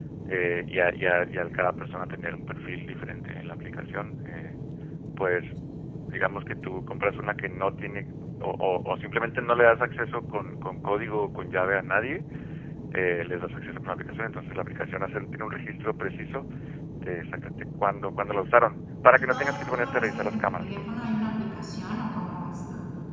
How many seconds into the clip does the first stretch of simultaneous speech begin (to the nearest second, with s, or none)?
19 s